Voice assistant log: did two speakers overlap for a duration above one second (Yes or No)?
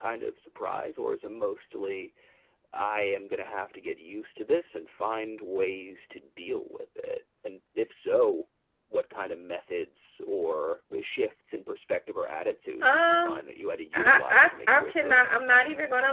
Yes